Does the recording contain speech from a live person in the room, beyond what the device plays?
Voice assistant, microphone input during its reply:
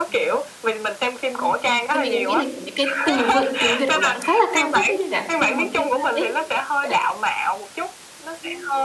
Yes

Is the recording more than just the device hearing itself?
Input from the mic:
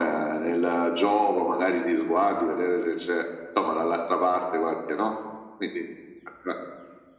No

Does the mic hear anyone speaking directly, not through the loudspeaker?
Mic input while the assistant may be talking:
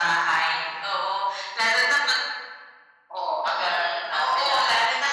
No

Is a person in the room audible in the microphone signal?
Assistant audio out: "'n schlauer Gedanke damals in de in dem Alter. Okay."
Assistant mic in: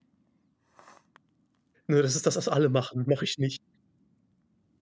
Yes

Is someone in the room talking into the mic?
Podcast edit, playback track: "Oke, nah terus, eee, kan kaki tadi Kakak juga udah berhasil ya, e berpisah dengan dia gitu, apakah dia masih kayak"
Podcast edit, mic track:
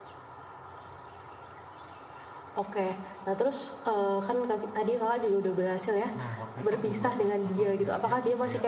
Yes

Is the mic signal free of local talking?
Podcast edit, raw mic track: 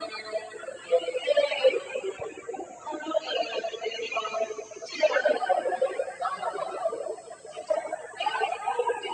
Yes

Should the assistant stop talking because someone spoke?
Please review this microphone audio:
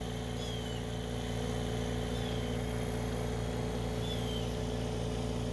No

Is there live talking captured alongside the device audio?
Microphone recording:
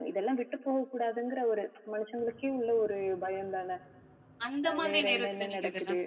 Yes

